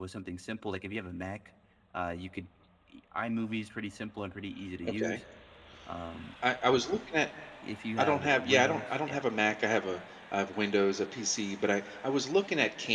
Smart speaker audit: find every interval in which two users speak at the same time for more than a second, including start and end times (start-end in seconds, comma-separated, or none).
8.0-9.2